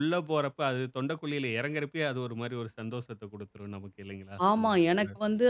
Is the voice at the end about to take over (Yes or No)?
Yes